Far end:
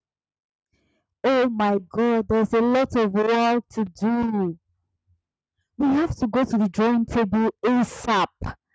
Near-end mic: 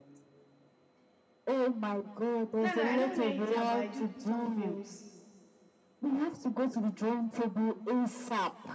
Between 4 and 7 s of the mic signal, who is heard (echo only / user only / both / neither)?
both